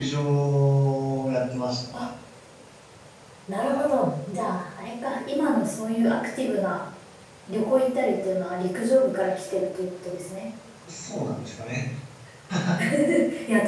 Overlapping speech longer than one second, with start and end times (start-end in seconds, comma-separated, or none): none